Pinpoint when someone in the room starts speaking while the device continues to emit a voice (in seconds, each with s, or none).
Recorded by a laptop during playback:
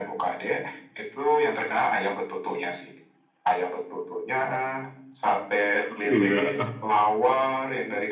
6.1 s